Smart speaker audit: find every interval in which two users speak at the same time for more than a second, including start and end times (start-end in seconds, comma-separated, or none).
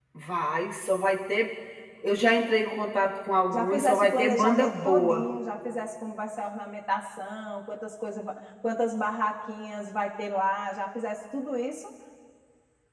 3.5-5.2